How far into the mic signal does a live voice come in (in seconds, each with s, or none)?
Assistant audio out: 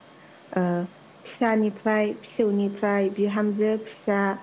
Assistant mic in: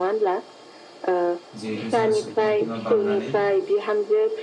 1.6 s